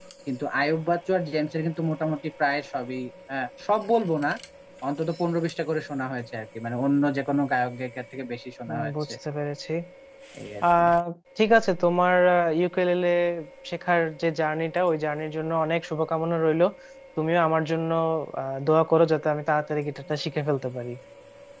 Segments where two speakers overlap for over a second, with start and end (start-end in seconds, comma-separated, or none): none